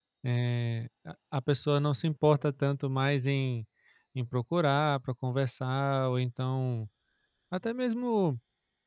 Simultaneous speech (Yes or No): No